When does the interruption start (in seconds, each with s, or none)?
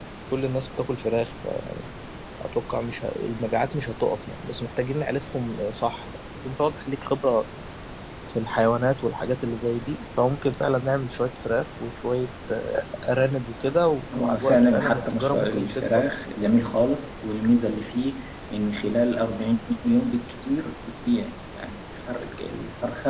14.1 s